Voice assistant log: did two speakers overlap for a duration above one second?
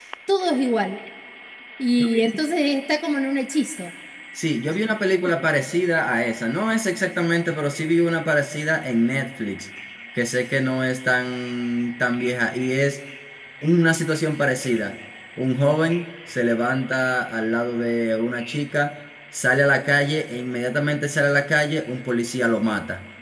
No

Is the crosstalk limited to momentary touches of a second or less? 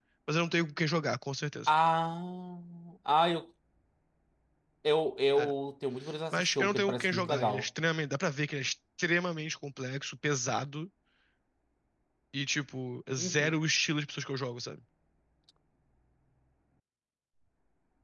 No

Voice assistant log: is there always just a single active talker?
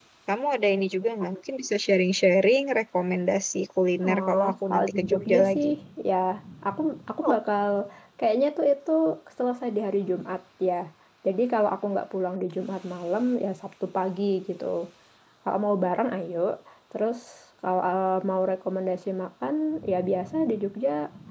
No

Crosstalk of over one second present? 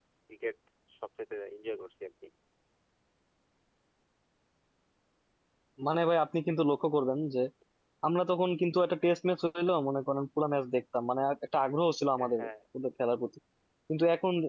No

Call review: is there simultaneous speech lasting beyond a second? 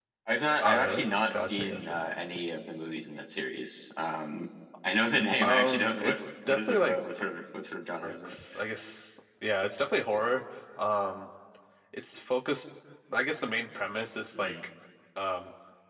Yes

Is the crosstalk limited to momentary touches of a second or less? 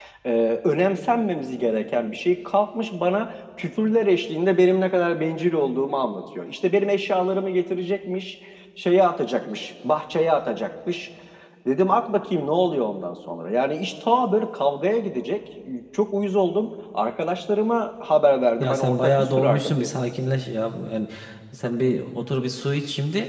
No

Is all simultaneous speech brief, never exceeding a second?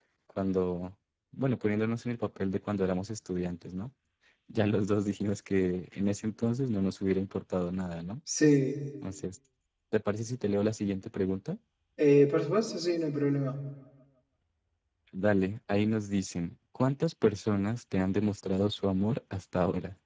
Yes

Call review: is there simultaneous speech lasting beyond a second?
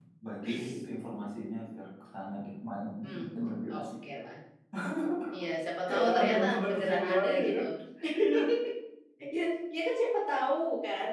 Yes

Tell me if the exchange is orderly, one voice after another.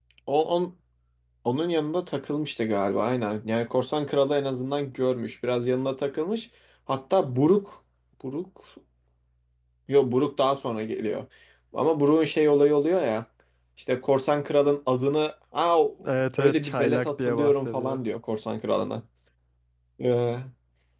No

